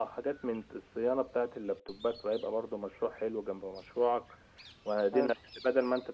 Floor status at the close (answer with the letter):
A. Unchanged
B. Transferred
A